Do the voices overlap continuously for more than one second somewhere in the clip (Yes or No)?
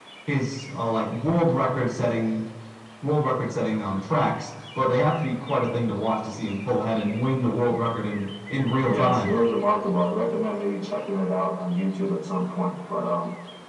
No